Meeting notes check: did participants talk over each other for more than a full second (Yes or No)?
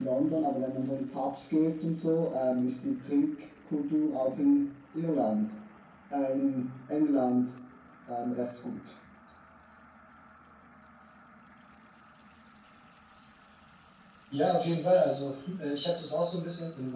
No